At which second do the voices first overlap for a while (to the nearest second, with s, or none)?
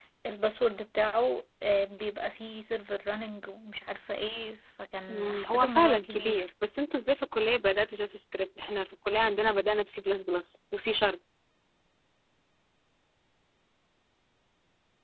5 s